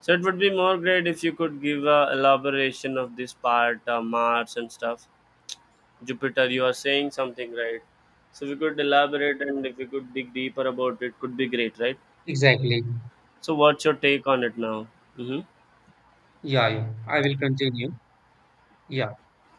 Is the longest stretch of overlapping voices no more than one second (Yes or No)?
Yes